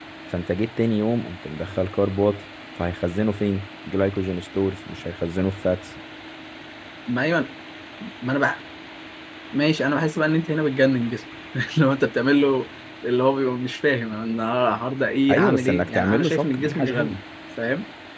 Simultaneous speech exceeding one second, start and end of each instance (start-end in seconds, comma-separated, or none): 15.3-17.2